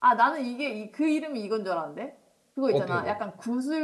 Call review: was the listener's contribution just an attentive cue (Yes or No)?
Yes